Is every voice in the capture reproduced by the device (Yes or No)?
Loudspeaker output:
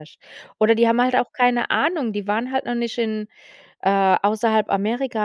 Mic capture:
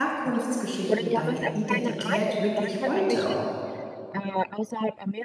No